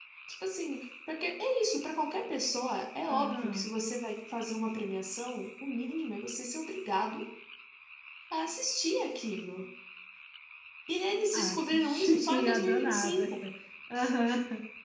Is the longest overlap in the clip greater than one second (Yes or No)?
Yes